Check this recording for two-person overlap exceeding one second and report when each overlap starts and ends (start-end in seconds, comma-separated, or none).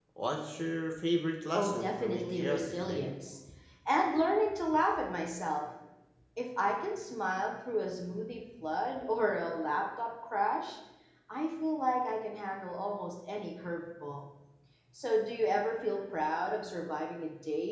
1.5-3.1